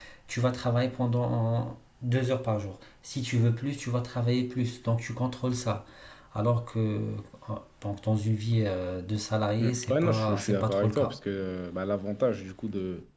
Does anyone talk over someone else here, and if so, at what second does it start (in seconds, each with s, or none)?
9.6 s